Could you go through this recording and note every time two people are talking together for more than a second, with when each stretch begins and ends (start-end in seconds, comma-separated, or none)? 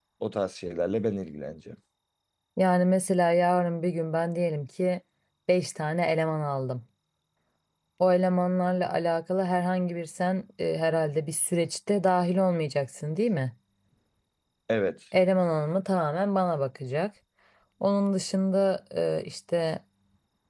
none